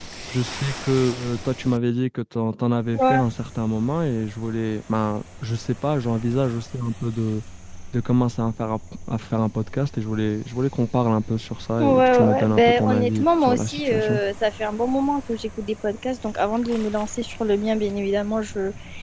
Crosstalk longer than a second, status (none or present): present